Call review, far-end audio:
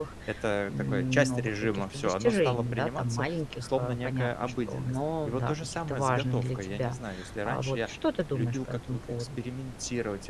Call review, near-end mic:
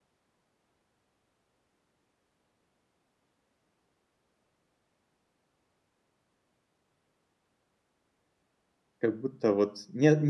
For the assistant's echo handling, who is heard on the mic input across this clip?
user only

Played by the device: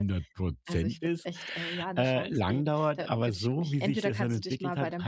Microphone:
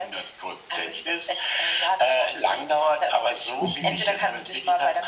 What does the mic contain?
both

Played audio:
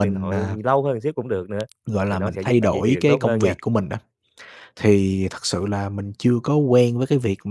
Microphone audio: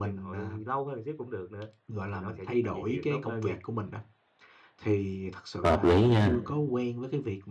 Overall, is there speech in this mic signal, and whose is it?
both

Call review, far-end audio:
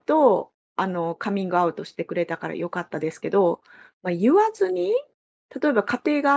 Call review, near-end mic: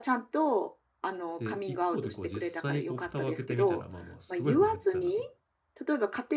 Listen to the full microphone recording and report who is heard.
both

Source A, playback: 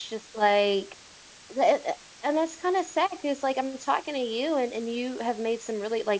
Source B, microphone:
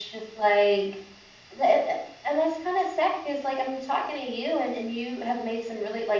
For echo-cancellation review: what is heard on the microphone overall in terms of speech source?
echo only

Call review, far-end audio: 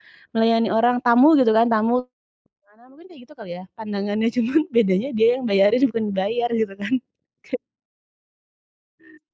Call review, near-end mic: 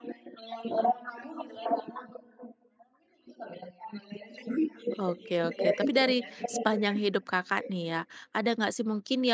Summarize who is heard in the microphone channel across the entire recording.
both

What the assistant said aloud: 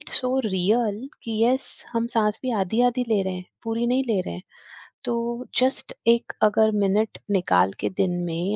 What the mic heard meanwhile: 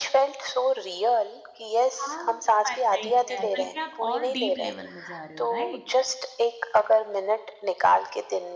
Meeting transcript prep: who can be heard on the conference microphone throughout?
both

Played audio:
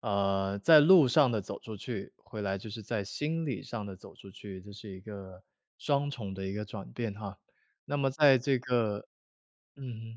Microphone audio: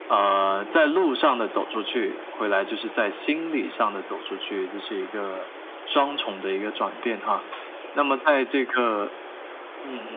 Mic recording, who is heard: echo only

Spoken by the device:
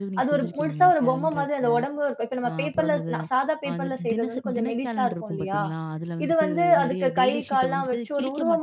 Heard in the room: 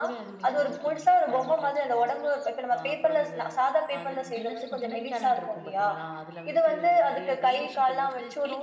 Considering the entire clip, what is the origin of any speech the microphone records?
echo only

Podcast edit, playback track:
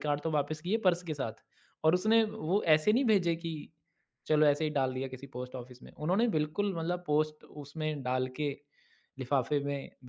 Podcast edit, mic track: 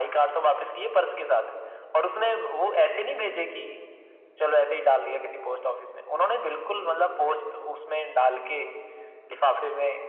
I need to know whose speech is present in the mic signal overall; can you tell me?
echo only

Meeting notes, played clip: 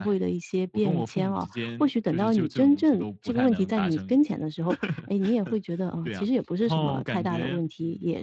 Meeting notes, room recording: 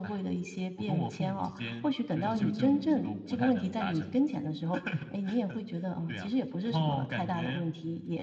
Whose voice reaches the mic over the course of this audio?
both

